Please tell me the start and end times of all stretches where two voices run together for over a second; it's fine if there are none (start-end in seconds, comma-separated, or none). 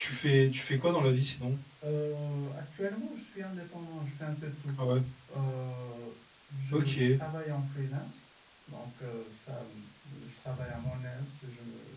none